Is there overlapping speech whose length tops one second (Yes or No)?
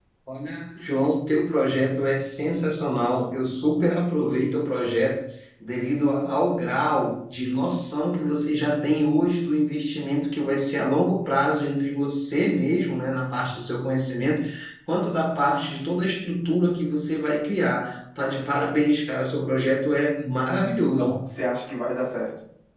No